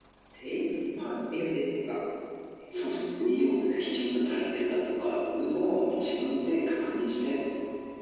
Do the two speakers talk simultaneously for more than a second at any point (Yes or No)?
No